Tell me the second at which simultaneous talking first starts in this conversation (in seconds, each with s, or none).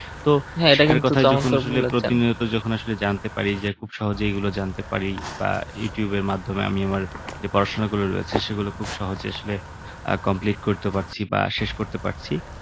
0.8 s